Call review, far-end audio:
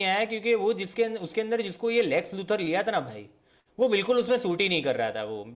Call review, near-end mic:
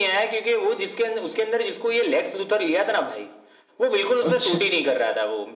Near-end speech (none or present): present